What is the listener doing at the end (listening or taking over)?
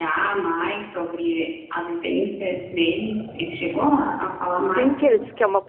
taking over